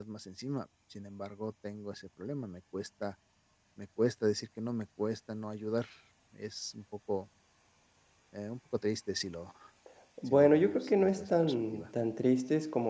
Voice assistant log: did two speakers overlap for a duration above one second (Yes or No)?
Yes